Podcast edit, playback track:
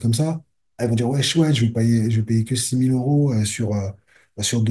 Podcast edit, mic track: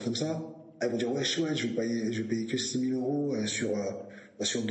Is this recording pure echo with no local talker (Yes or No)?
Yes